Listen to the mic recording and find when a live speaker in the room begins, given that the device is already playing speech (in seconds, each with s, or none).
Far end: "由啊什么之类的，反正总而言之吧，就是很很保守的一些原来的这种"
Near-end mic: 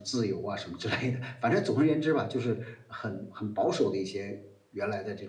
none